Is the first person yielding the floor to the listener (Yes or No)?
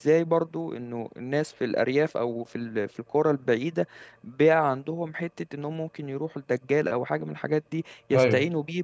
No